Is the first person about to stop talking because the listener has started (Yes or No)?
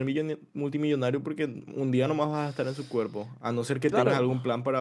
No